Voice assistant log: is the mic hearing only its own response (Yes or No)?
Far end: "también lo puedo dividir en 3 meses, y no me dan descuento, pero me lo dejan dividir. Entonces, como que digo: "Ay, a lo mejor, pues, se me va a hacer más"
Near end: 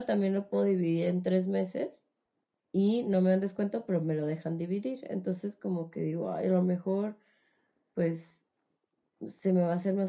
Yes